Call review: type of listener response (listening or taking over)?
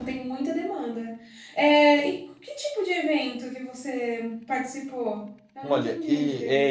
taking over